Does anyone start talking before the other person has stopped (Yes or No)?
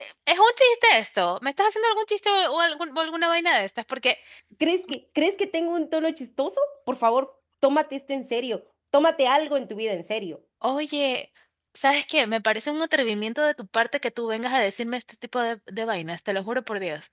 No